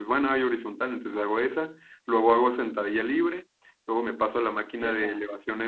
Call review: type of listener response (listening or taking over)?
listening